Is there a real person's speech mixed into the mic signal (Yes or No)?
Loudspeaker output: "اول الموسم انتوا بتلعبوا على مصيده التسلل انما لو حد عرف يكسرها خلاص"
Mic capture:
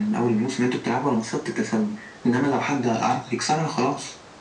No